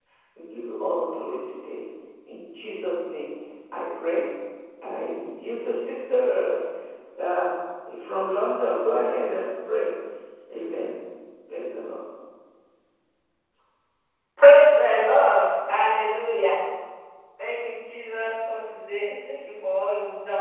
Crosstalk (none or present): none